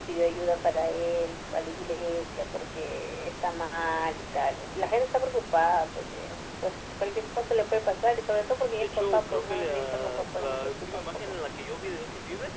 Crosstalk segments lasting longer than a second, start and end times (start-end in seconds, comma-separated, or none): 8.8-11.4